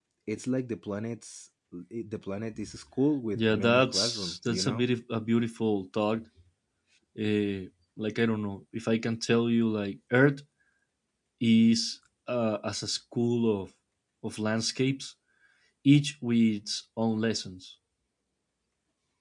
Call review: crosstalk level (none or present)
present